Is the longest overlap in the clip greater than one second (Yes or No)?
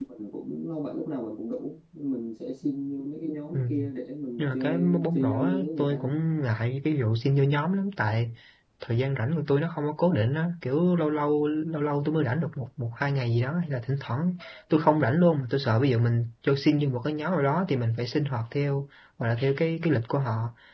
Yes